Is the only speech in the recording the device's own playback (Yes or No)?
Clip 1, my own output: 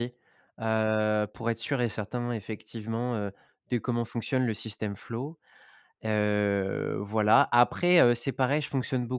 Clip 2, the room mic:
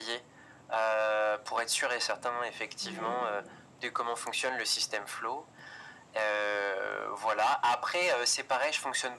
No